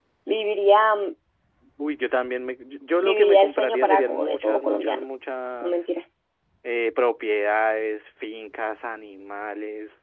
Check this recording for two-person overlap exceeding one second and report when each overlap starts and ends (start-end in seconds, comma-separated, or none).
3.0-5.0